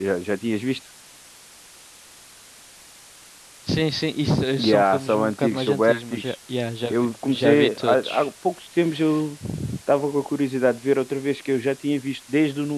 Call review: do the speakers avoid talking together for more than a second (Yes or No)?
No